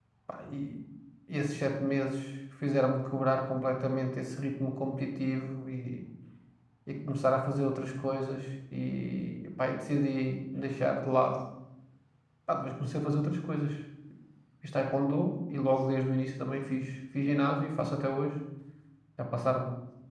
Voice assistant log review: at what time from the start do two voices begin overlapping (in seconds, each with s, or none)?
none